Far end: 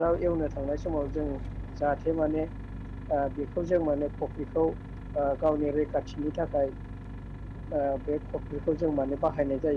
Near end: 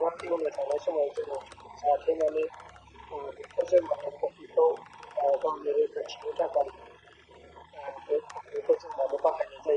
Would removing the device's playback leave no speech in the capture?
Yes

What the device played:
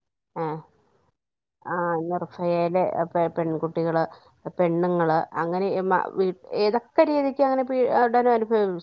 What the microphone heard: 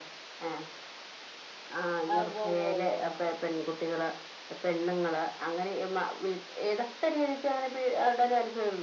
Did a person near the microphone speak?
Yes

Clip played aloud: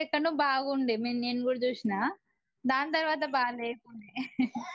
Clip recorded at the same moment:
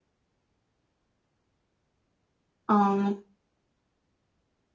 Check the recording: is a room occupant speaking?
Yes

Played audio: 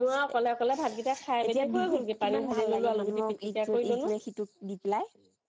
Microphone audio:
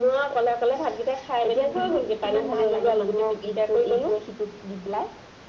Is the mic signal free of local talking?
Yes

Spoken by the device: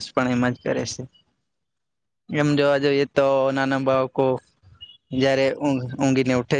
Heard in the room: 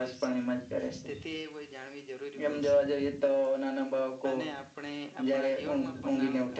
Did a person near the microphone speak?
Yes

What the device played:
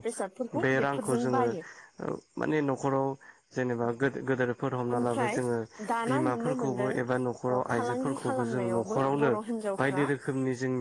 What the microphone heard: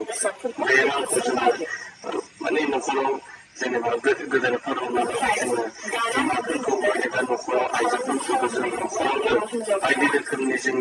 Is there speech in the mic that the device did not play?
No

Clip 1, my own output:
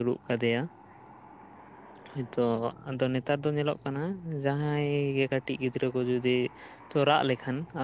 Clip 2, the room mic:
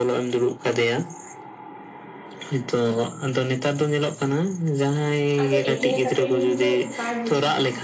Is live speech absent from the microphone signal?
No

